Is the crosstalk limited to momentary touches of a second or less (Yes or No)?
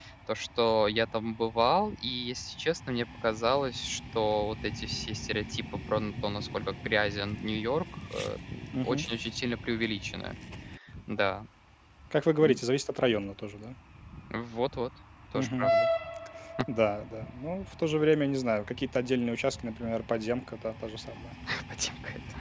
Yes